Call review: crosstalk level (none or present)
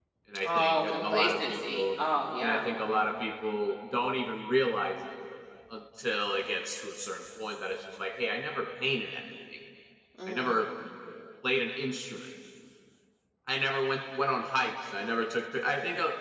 present